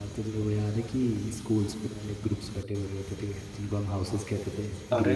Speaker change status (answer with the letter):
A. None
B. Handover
B